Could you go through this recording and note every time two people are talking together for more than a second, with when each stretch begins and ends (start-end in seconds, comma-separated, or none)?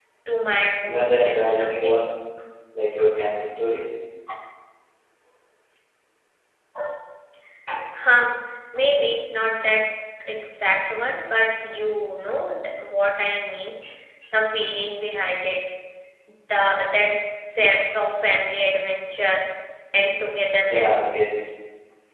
0.8-2.1